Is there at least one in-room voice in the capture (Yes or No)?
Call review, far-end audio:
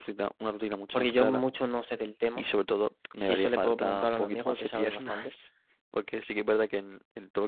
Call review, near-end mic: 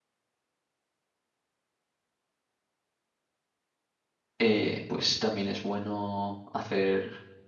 Yes